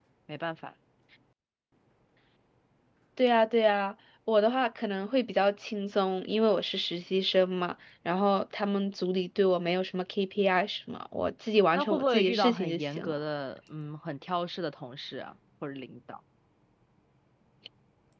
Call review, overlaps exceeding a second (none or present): present